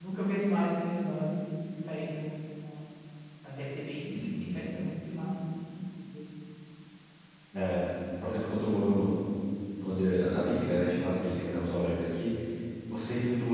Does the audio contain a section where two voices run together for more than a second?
No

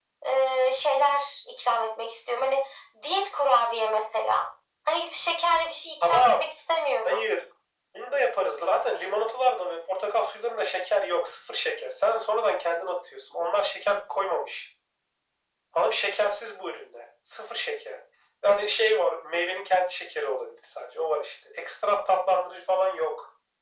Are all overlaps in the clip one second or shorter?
Yes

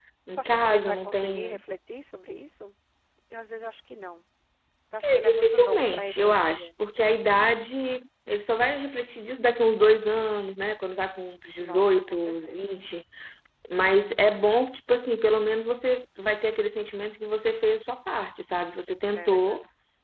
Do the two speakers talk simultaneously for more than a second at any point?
Yes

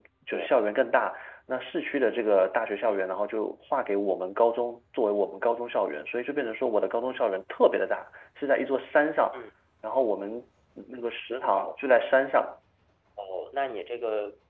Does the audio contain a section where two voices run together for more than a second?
No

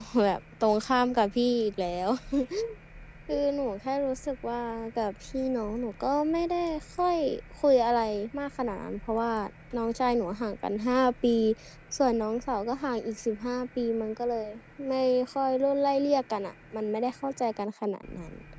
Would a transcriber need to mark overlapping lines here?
No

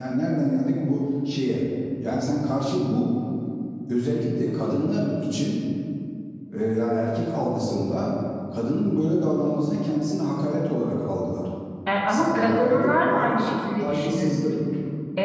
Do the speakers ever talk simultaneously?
Yes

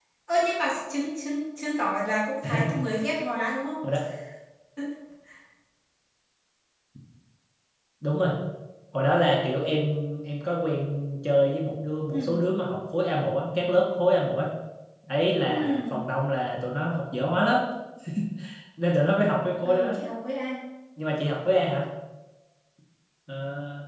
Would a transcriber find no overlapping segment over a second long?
Yes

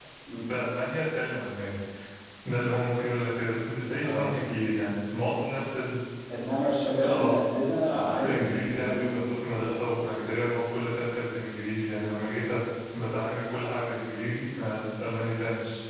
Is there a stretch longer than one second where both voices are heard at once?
Yes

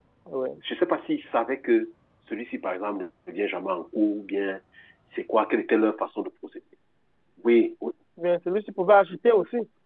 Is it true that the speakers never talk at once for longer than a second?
Yes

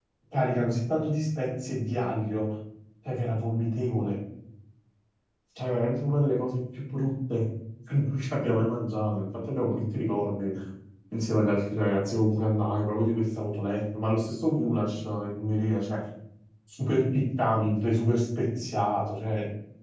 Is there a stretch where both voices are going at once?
No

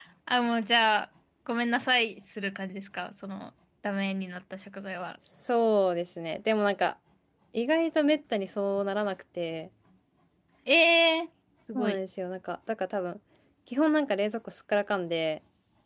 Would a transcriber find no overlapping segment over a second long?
Yes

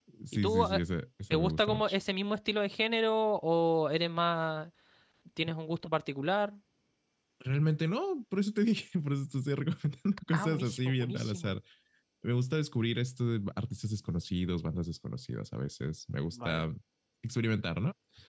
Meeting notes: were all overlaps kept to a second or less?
No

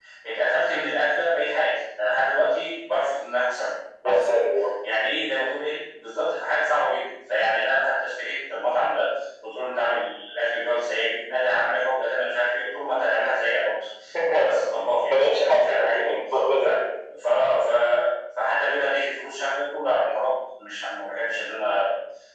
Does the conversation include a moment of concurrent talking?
Yes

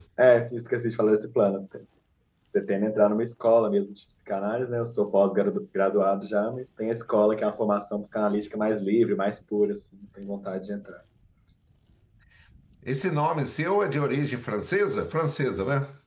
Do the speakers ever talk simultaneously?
No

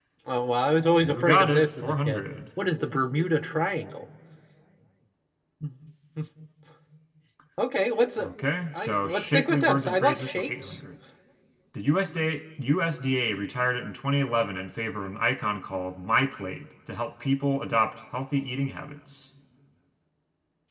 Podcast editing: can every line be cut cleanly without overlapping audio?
No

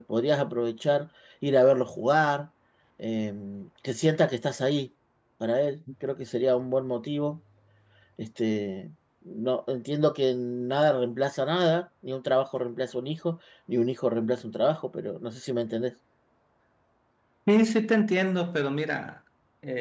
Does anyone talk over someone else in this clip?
No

